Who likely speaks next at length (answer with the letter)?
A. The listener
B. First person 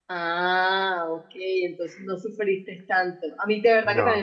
B